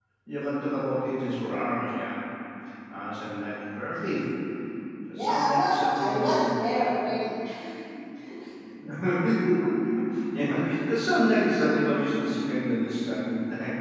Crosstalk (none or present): present